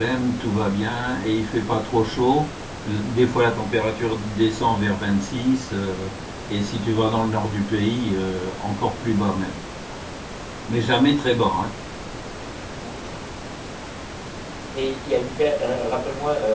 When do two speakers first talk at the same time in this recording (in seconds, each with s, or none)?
none